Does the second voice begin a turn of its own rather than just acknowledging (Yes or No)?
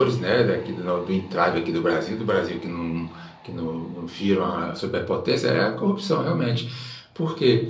No